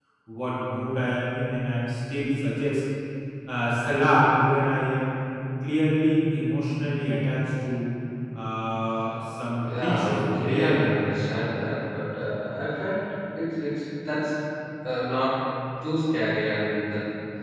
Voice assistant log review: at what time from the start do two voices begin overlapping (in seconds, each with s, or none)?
9.6 s